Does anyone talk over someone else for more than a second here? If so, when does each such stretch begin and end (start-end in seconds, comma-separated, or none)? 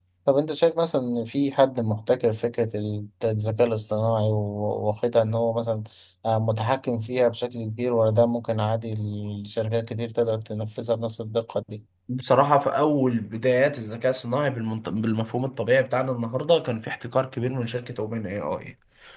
none